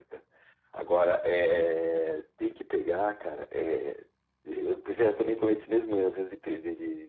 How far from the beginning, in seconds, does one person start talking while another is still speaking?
none

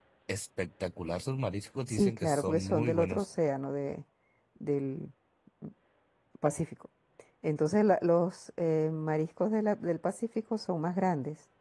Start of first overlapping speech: 2 s

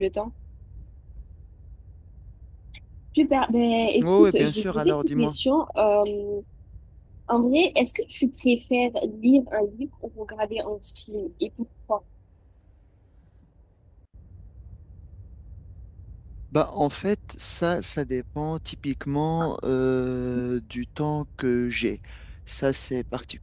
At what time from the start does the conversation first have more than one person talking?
4 s

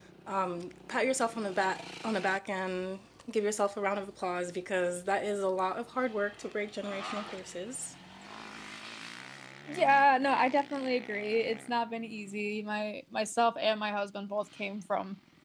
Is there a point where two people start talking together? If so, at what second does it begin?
none

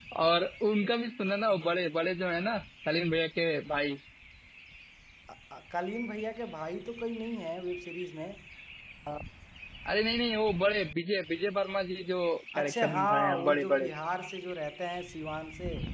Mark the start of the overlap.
13 s

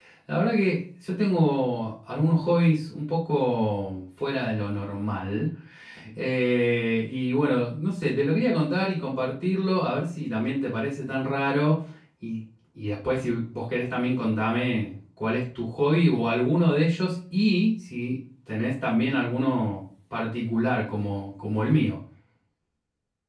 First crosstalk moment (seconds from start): none

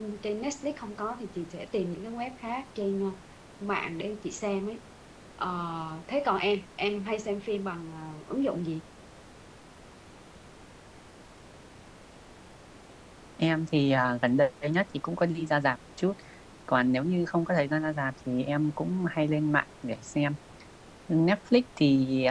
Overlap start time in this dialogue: none

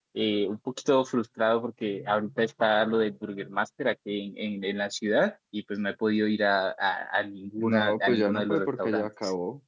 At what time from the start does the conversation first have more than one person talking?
8 s

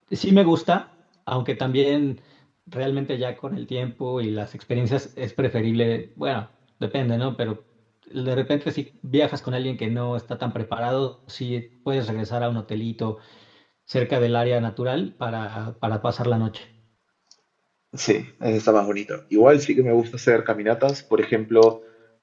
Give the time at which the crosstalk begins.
none

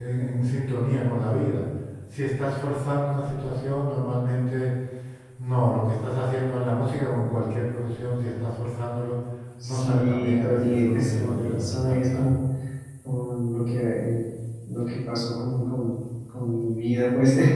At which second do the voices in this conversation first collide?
10 s

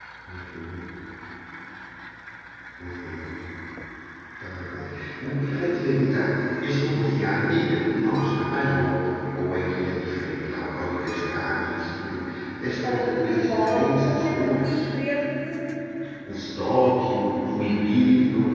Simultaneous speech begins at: 13 s

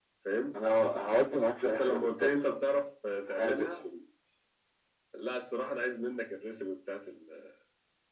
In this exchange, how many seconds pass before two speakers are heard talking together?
2 s

